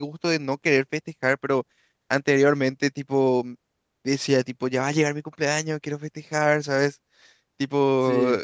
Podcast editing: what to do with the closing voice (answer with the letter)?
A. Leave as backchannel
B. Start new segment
A